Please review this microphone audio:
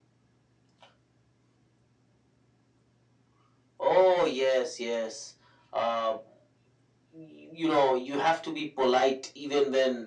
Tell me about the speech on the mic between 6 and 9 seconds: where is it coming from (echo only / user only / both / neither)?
echo only